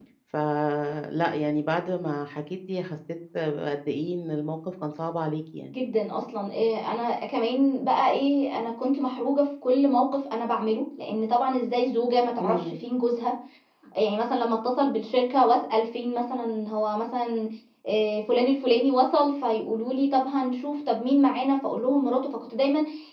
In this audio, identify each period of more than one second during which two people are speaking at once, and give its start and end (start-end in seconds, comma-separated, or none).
none